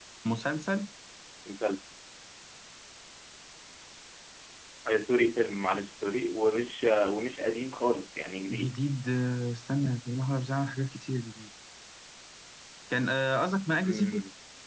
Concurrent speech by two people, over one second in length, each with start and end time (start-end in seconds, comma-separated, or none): none